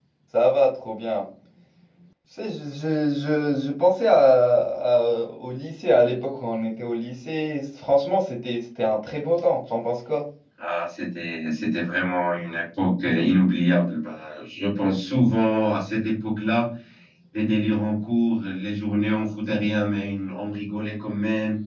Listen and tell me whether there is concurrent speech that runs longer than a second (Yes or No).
No